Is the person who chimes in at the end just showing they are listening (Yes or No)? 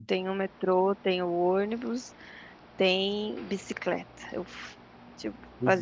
Yes